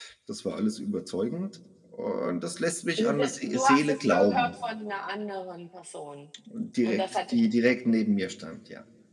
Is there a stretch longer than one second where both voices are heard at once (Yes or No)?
Yes